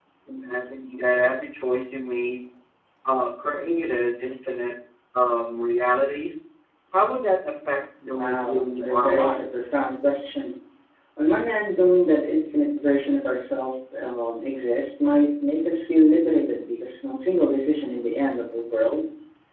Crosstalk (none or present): present